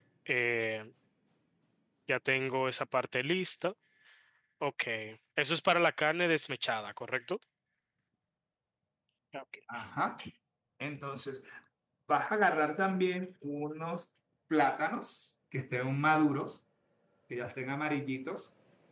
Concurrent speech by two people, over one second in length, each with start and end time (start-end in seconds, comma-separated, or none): none